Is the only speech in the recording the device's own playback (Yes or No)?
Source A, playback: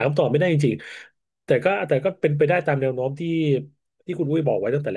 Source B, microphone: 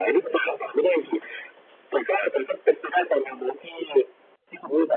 Yes